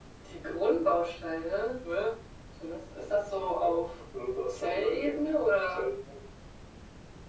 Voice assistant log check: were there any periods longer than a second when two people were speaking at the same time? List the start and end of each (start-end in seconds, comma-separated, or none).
4.5-5.8